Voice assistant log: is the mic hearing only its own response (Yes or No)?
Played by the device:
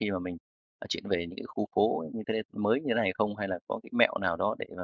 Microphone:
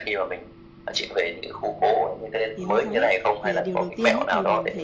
No